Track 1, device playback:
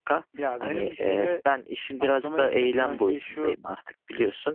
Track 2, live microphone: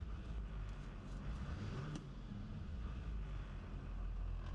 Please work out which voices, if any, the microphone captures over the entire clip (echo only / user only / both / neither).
neither